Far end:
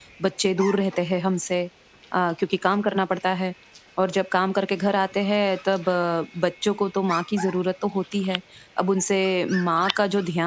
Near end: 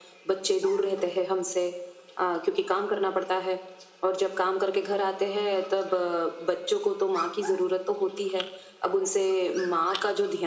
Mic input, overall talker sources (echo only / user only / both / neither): echo only